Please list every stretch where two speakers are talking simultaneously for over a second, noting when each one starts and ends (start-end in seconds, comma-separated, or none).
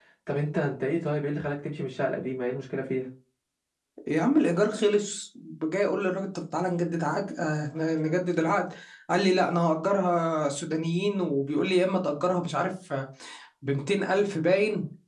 none